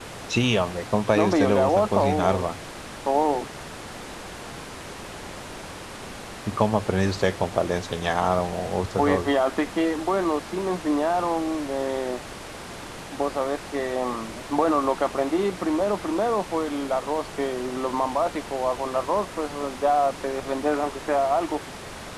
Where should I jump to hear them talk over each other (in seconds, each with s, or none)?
1.1 s